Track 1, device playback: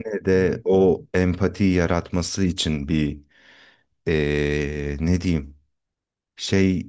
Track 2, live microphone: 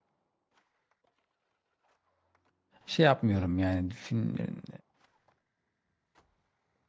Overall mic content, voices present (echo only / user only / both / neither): user only